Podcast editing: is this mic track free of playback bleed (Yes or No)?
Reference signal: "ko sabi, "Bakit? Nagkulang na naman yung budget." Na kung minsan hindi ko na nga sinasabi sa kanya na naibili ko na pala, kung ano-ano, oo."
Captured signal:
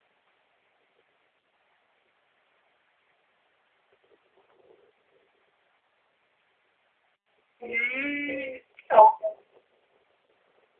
Yes